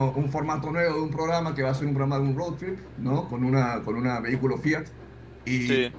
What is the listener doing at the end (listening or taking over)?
listening